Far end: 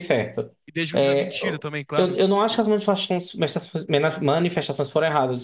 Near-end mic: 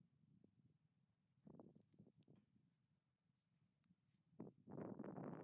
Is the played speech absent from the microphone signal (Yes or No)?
Yes